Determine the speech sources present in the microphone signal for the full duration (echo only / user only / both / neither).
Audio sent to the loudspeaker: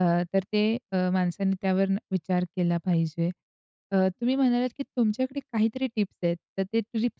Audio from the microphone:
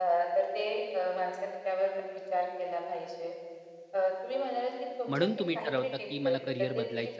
both